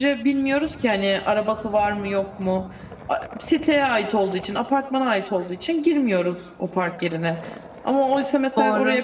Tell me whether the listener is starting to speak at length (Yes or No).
No